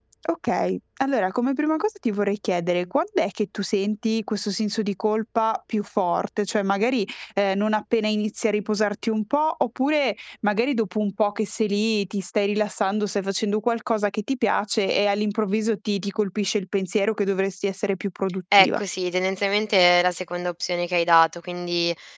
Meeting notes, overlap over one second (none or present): none